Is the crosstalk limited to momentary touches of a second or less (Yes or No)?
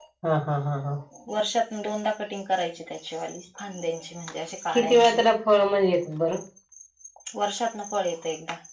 Yes